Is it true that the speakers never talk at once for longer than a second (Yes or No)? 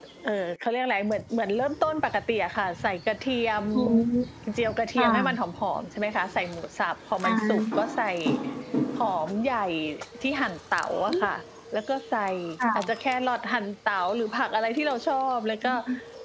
Yes